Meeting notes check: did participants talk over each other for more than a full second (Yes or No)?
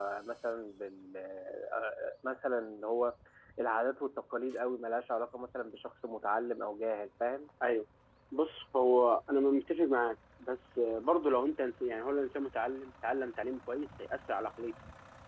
No